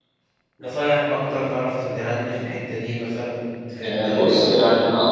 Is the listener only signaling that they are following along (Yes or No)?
No